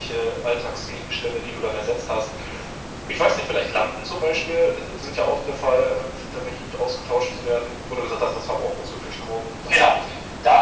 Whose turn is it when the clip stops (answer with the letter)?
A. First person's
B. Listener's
B